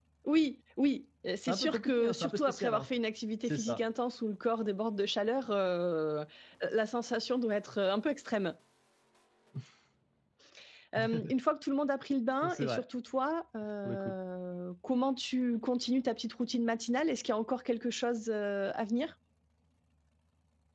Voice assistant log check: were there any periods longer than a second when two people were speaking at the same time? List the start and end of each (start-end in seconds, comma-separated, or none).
1.5-2.9